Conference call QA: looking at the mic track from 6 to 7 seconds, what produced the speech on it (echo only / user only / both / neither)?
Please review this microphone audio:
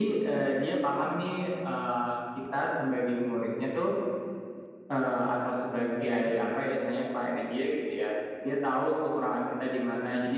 both